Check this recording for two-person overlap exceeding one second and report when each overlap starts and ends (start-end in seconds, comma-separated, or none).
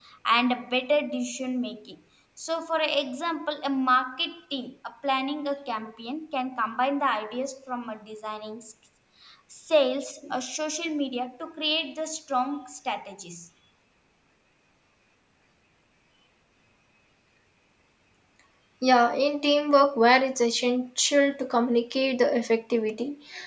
none